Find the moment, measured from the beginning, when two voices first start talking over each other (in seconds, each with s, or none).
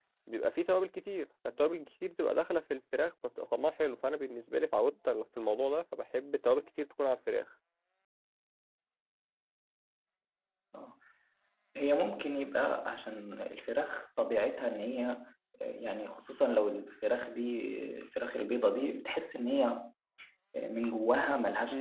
none